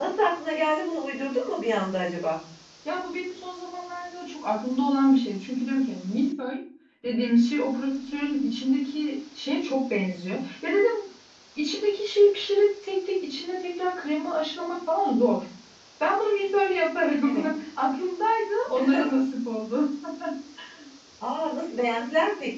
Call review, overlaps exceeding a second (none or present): none